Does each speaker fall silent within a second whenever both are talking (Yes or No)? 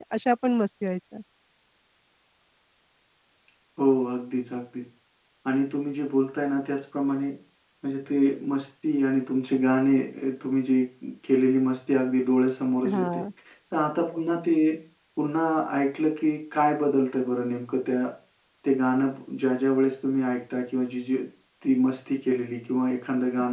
Yes